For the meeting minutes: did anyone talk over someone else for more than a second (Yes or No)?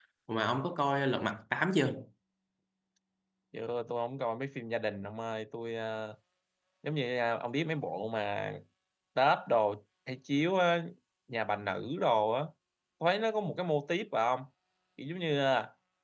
No